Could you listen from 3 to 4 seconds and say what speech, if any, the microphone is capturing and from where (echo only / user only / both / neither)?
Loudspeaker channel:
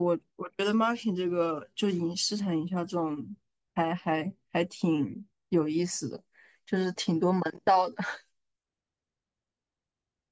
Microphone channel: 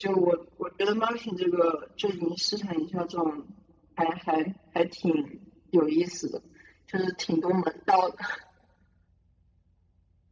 echo only